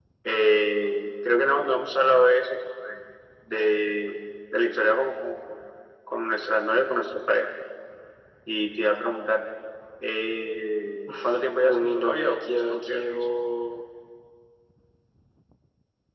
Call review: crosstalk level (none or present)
present